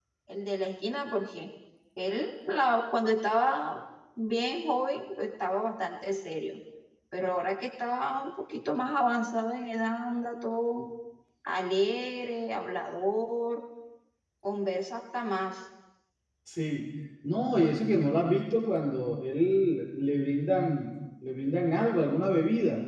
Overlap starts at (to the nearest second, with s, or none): none